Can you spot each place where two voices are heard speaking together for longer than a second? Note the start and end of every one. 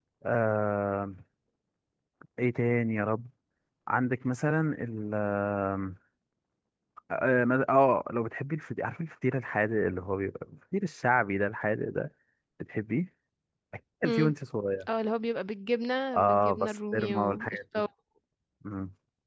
16.1-17.6

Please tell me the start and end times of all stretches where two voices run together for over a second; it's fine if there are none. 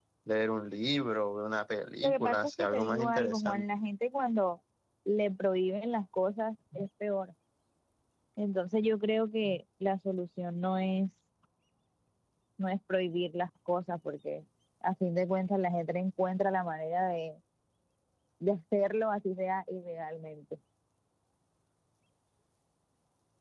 2.0-3.6

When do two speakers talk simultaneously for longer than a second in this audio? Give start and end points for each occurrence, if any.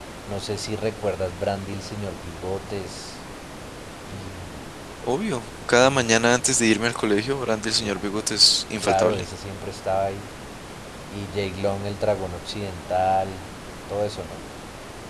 none

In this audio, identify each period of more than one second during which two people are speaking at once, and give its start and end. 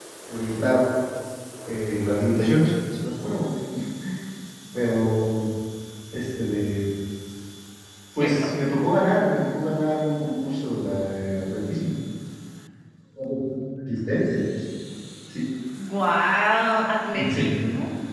none

